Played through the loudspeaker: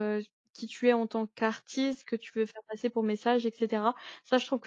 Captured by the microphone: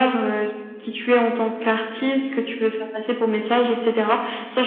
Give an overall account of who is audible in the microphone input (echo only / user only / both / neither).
echo only